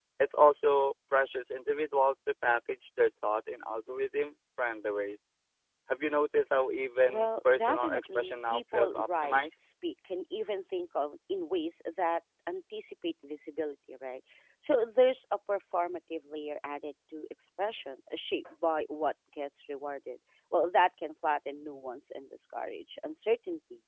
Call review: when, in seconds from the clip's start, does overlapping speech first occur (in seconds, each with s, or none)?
7.1 s